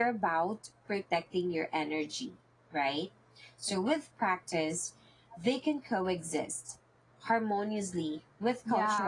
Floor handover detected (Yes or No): Yes